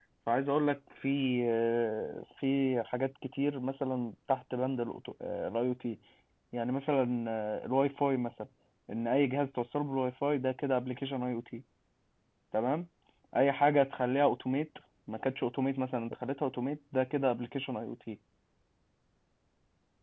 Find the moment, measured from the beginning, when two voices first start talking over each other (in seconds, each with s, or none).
none